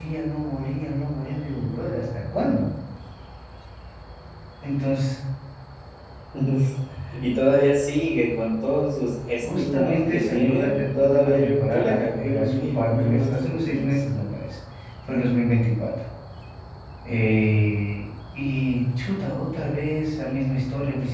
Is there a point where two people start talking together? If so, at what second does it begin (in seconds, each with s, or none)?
9.4 s